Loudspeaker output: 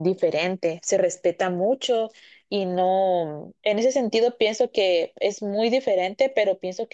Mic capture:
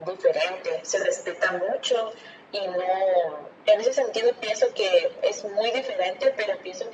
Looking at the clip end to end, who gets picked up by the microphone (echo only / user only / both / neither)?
echo only